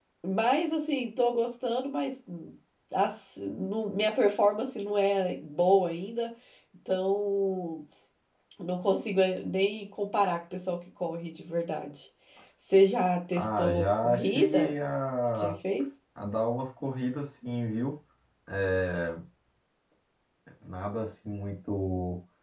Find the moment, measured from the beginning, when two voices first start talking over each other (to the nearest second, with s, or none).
13 s